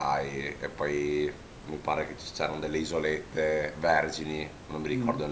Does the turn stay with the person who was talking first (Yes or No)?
Yes